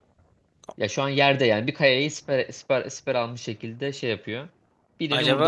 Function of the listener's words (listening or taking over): taking over